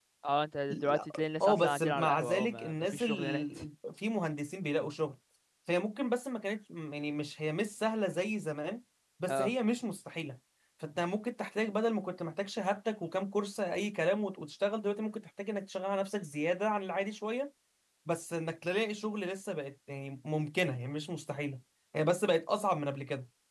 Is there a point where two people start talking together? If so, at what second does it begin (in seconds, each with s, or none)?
0.7 s